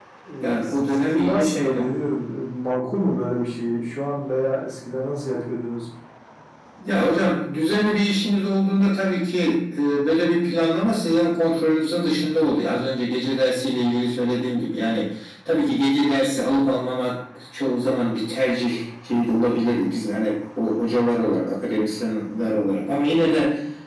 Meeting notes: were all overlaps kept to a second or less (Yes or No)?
No